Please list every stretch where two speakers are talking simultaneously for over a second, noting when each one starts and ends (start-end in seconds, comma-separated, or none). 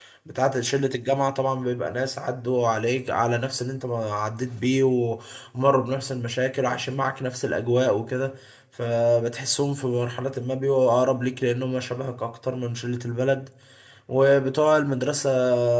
none